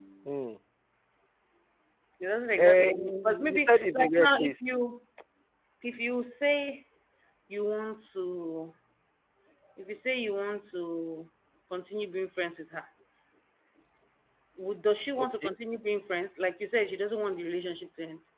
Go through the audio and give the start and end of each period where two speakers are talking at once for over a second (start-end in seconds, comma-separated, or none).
2.6-4.5